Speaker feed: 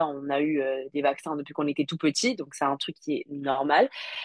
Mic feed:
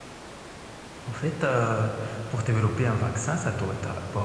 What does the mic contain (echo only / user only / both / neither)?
user only